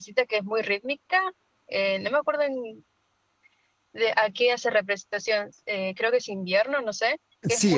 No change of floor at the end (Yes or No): No